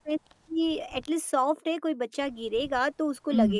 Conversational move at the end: taking over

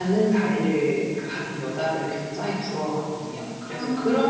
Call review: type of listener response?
listening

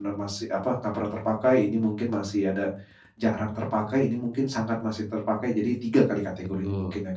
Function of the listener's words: taking over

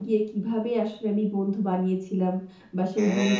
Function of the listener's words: listening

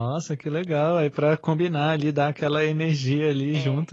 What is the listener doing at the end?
taking over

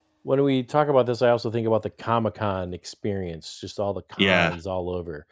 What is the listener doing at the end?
listening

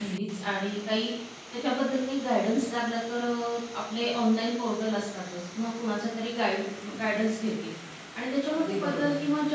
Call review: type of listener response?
listening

